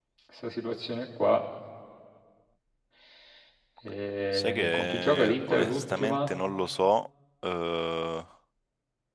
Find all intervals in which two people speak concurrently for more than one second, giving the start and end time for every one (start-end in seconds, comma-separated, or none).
4.3-6.3